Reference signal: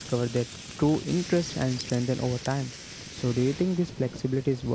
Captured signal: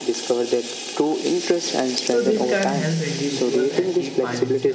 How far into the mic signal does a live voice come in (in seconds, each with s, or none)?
2.1 s